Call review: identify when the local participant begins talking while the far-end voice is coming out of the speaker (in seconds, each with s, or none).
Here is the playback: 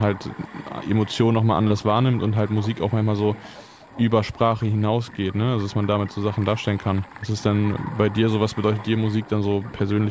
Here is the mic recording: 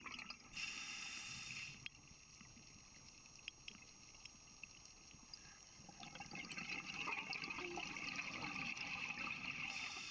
none